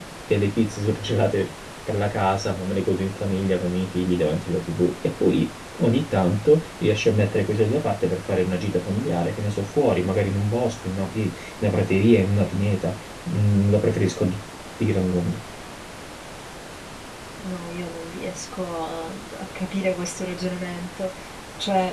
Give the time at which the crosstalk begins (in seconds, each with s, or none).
none